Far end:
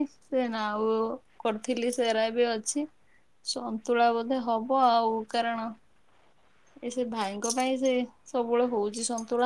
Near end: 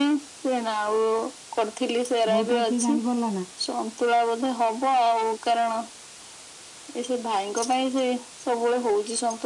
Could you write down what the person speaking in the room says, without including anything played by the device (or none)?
ବୋଉଟା କିଏ ଜାଣିପାରିଲ ନାଁ